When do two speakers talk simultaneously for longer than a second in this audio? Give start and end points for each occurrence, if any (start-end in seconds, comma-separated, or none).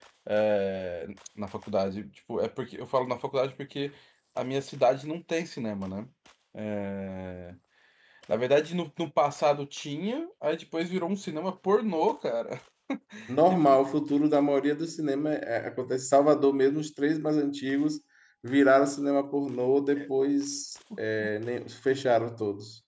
none